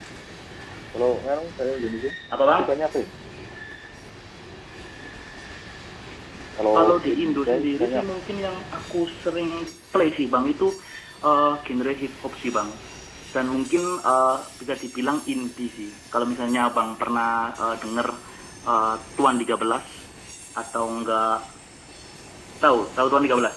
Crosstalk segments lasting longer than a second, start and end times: 6.7-8.1

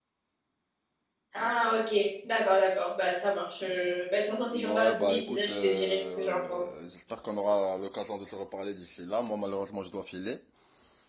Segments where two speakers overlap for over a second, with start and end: 4.5-6.6

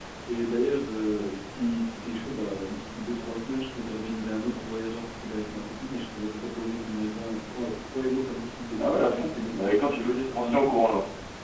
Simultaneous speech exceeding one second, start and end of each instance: 8.8-10.7

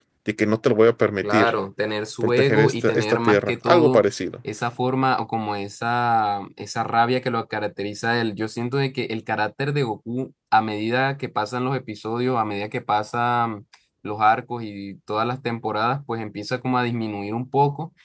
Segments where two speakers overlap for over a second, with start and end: 2.2-4.0

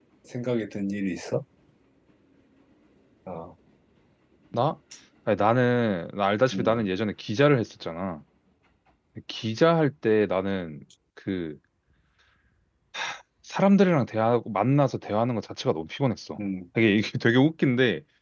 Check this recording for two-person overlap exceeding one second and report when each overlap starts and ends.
none

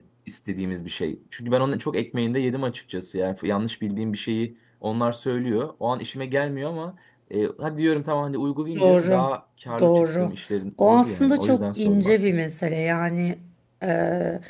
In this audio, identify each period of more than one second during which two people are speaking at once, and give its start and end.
10.8-12.3

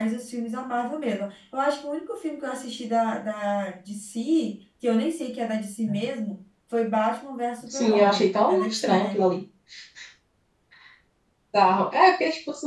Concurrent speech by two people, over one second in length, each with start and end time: 7.7-9.2

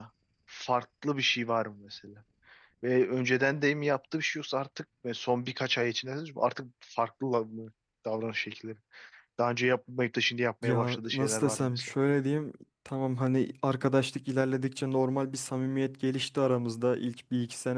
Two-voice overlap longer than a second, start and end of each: 10.6-11.9

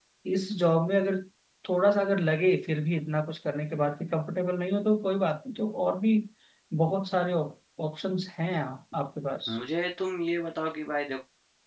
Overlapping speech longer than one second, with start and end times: none

